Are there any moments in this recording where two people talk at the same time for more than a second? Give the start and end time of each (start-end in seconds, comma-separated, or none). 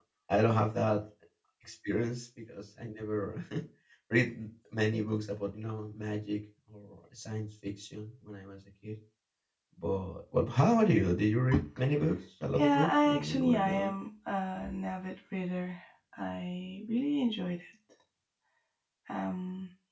12.6-13.9